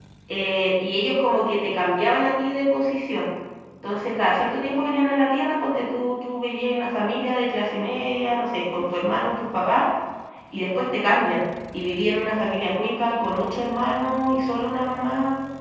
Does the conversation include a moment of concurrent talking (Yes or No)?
No